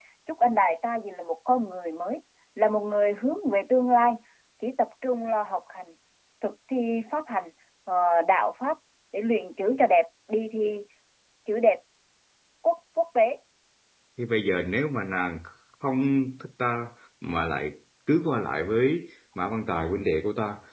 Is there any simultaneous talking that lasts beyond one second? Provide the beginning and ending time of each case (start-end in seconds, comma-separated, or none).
none